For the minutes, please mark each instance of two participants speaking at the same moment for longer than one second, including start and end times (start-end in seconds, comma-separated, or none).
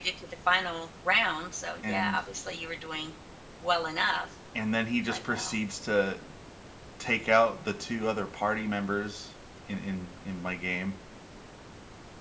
none